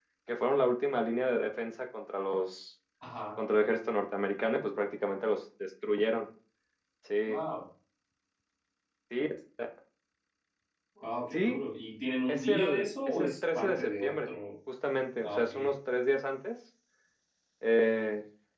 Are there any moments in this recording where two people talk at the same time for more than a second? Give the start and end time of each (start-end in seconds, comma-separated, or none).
12.3-14.3